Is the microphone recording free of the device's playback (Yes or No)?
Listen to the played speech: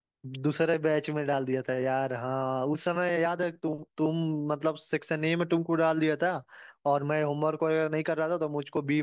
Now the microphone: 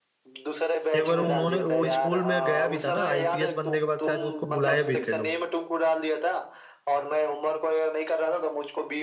No